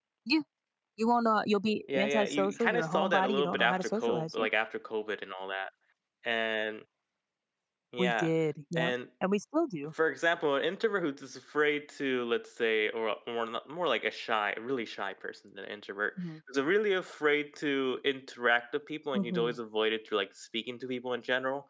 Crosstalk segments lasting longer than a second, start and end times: 1.9-4.5

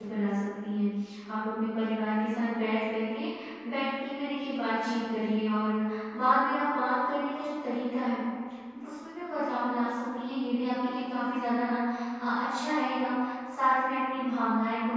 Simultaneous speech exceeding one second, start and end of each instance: none

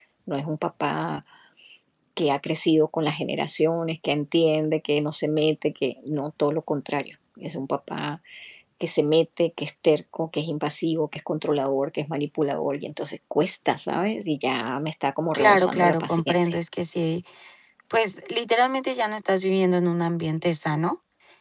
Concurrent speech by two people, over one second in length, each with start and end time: 15.3-16.6

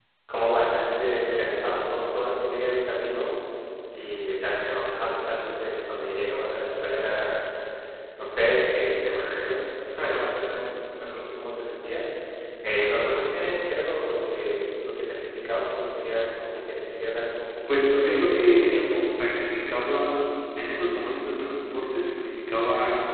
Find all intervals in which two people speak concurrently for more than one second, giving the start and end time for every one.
17.7-19.1

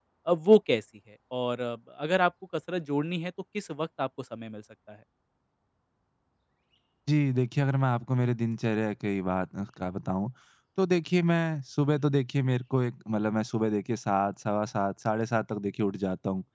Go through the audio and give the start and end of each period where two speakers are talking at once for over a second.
none

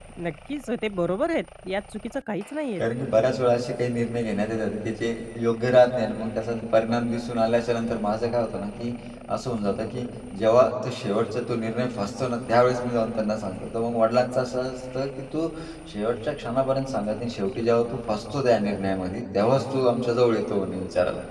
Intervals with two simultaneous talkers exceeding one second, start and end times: none

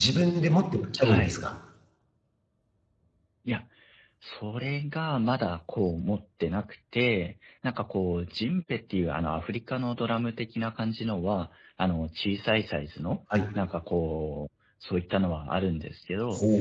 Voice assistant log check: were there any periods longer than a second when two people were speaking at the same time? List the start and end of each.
none

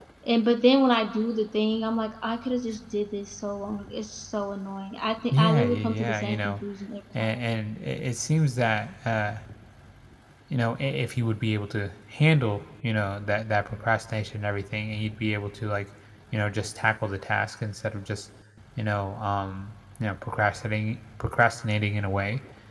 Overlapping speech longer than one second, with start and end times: 5.3-6.5

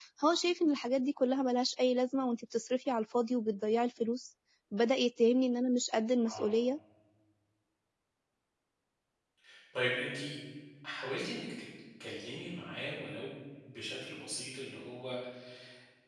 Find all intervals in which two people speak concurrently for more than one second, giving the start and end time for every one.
none

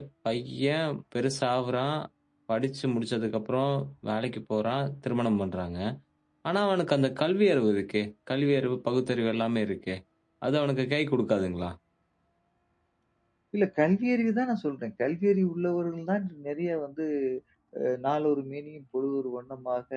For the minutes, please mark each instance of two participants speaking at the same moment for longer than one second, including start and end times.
none

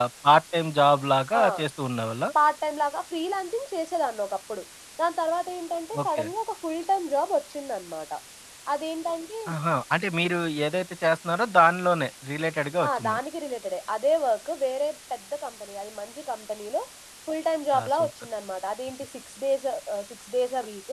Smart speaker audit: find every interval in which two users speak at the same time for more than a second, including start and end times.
none

